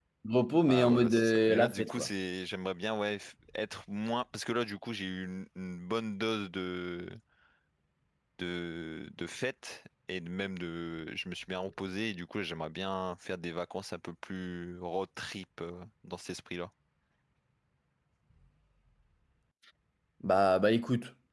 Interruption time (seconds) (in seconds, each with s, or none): 0.7 s